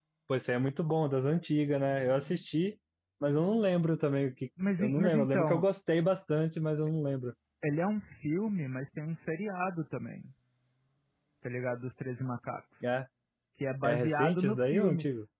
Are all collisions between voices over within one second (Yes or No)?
No